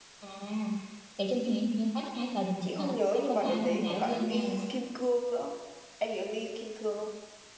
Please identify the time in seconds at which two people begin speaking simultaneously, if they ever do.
2.6 s

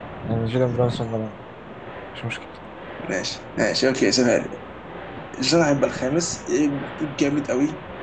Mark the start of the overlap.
none

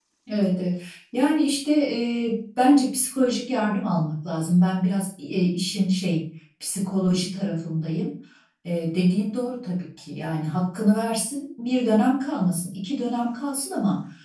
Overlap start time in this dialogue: none

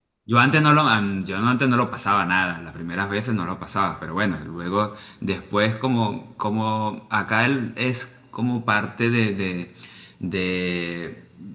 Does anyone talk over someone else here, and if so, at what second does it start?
none

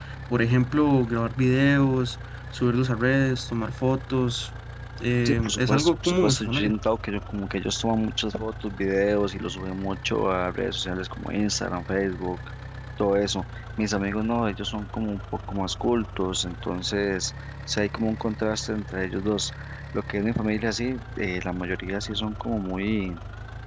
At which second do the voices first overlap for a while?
5.2 s

